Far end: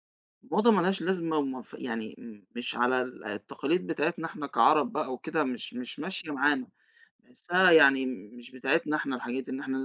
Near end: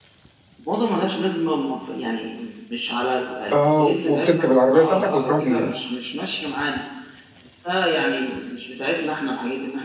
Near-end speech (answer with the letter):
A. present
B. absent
A